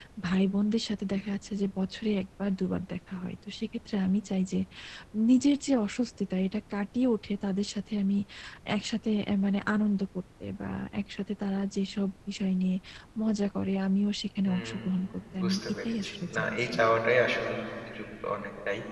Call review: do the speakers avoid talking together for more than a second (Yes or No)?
No